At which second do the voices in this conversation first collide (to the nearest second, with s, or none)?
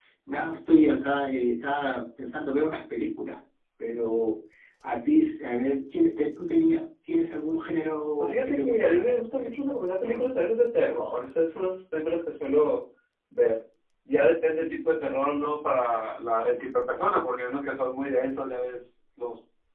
8 s